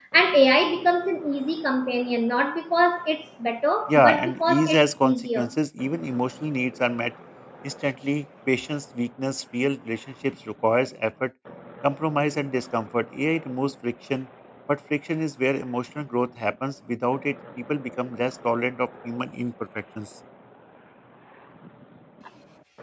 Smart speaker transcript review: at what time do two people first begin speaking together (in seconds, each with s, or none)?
3.9 s